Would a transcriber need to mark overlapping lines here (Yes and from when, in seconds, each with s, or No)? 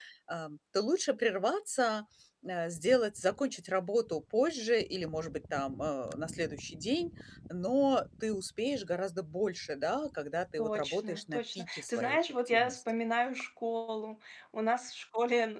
Yes, from 10.6 s